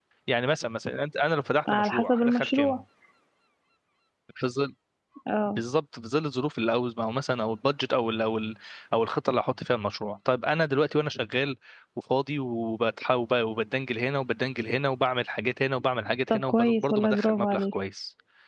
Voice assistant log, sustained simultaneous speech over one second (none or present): present